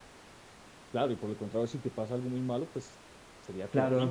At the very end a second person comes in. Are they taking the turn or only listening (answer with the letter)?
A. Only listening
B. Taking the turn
B